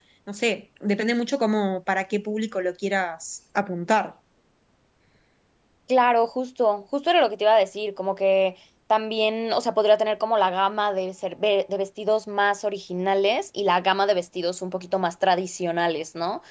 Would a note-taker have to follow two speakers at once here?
No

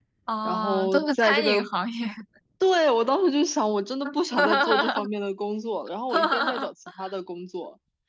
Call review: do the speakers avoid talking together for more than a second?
No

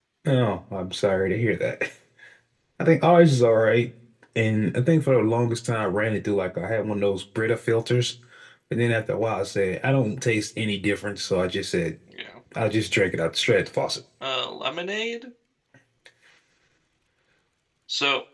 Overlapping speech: No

